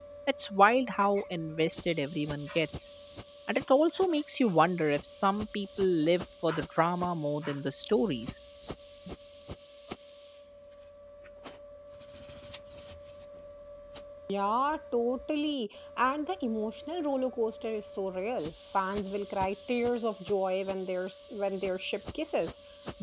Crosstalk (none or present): none